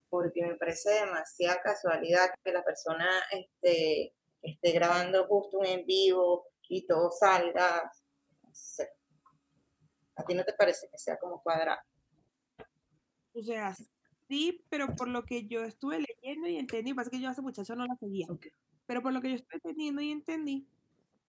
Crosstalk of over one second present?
No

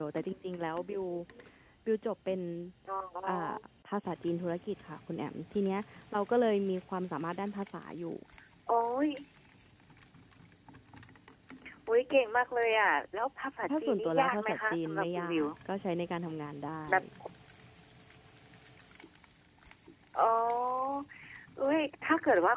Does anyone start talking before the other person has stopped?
Yes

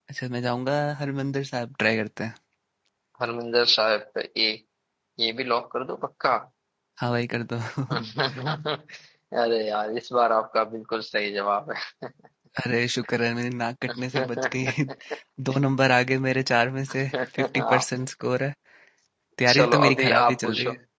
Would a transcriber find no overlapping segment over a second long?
No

